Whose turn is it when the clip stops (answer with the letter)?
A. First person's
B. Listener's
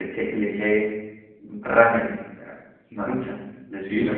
A